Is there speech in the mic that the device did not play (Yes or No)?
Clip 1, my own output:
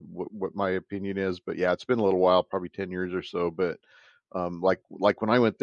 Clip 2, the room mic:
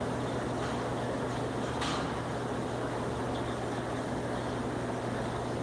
No